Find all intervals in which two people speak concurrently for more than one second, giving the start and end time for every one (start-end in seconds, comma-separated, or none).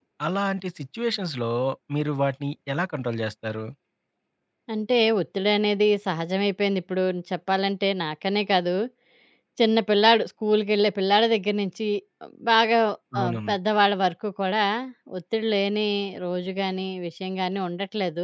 none